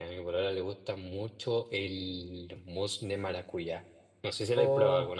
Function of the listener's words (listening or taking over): taking over